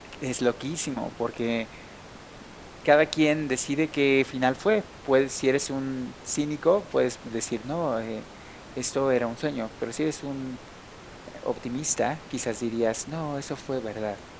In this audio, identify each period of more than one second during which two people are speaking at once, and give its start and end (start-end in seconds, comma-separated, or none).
none